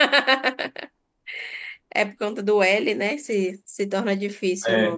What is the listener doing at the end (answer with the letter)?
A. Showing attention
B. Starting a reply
B